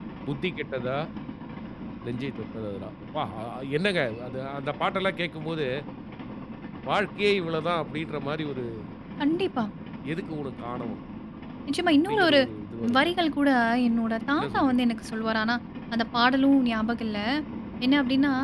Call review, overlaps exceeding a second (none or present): none